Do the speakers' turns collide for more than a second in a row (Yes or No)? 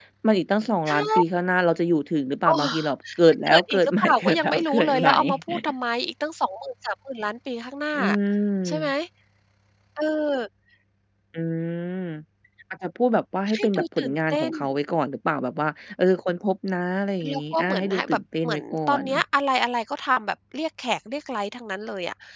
Yes